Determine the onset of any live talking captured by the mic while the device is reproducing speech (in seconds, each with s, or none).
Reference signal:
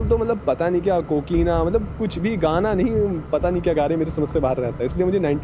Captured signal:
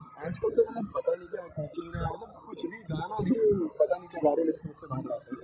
none